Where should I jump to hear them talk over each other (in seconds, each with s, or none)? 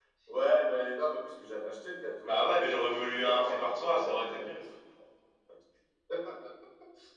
2.2 s